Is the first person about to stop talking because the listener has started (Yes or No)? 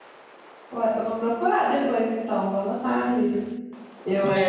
Yes